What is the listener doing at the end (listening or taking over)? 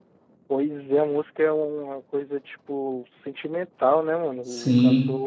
taking over